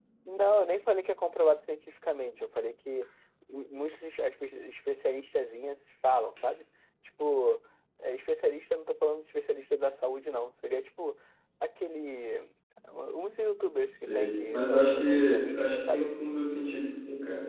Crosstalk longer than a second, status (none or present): present